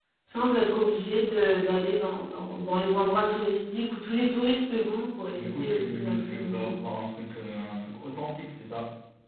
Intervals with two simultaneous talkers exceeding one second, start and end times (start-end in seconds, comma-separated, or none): 5.3-6.7